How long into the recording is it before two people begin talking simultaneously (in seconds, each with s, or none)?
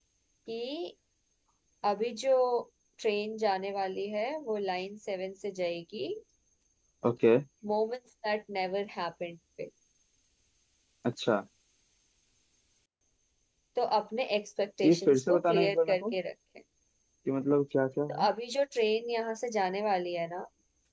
14.8 s